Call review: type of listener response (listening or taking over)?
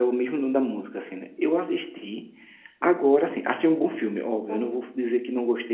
listening